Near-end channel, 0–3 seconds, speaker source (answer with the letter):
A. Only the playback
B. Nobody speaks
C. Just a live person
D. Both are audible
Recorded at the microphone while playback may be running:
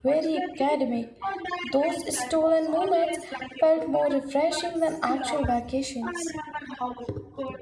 D